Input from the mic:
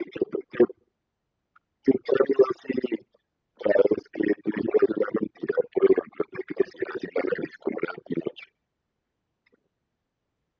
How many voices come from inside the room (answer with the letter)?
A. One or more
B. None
B